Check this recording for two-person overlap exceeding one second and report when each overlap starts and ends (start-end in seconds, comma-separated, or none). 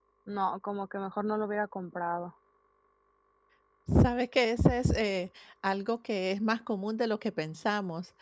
none